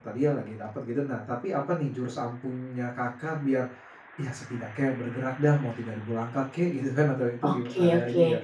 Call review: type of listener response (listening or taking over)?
taking over